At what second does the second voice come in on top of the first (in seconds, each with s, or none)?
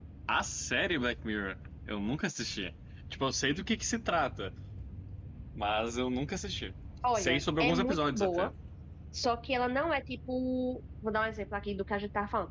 7.1 s